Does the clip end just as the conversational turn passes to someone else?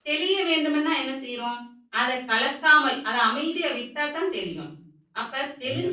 No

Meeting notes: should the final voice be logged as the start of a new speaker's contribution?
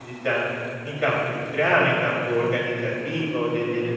No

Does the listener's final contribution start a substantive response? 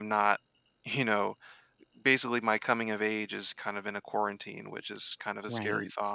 Yes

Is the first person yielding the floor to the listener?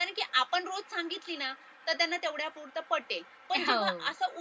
No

